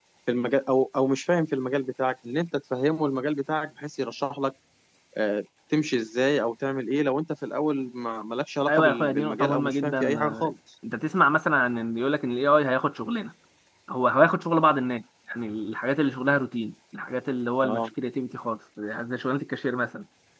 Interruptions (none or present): present